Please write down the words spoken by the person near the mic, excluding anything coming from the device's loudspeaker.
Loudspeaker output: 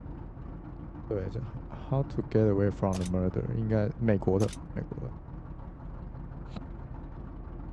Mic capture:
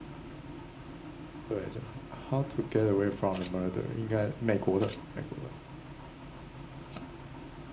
none

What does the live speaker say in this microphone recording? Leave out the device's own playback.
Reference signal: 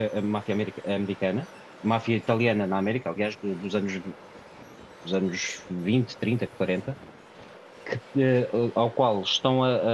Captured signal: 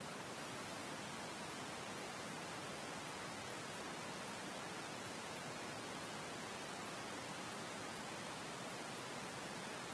none

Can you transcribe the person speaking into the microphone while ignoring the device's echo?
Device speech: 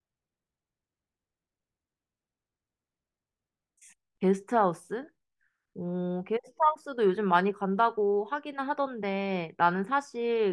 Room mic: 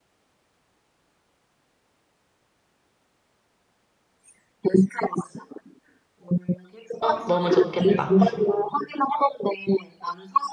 어, 너무 좋겠다.

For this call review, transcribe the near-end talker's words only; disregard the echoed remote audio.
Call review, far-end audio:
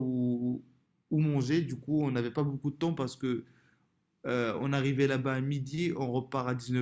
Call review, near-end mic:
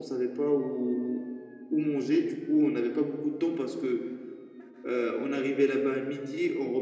none

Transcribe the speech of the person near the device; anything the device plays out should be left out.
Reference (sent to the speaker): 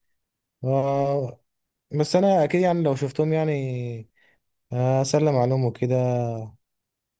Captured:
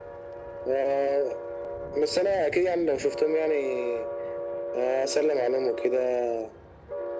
none

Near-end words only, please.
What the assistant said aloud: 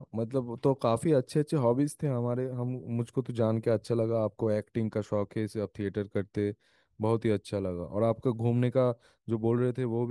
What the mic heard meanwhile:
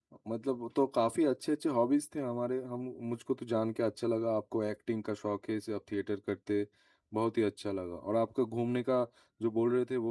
none

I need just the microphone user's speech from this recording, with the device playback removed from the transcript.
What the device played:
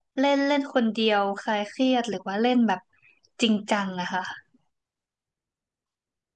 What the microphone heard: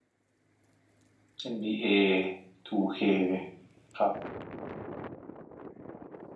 NBA 2K คครับ

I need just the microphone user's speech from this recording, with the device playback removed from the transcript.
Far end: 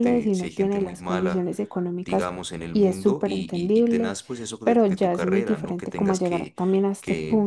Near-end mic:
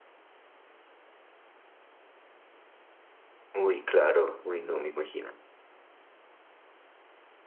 Uy, claro, uy, no, me imagino.

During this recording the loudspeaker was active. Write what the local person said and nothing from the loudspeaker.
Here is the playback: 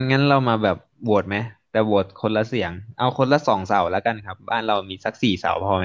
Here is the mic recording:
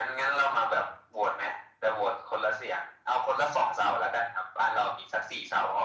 none

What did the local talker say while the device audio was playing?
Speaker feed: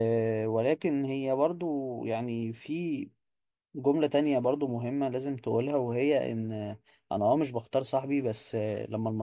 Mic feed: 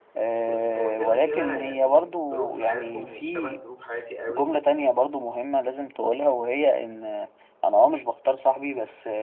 بص هو كده كده يعني ظروف حياتهم مش شبه ظروف حياتي قوي

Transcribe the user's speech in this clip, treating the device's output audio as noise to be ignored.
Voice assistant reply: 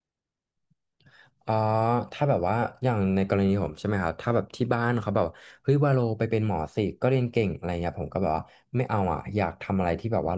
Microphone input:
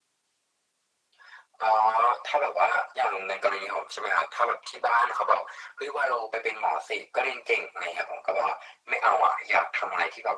none

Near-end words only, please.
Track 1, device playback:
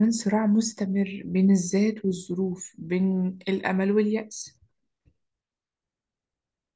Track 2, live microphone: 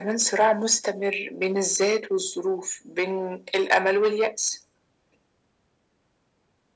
none

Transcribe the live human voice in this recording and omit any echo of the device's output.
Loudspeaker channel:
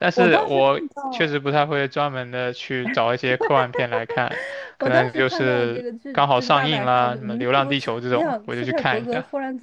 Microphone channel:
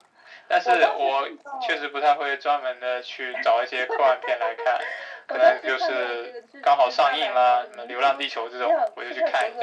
none

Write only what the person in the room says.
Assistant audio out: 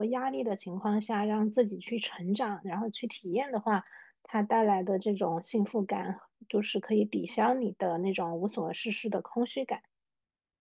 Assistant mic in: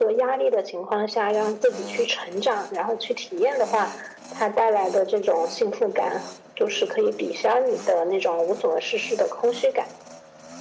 none

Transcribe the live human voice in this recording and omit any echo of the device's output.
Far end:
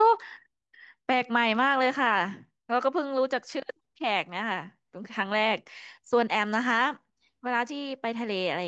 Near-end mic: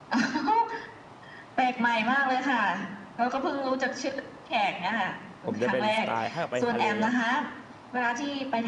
ผมจะเป็นสไตล์ถ้าไปทะเลเนาะ

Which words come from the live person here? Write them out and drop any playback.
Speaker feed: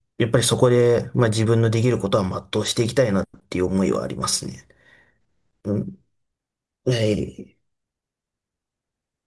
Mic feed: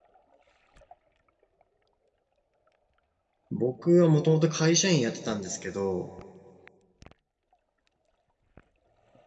僕はもともと会社員やってたんですけど、

